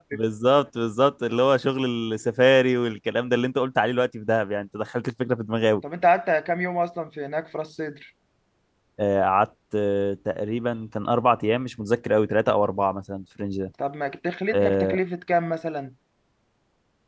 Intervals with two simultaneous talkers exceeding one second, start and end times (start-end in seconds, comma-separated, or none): none